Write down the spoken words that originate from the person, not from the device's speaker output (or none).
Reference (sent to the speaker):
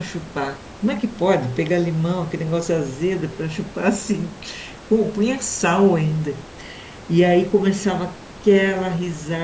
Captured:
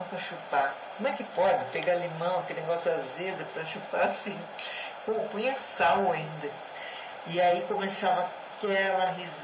none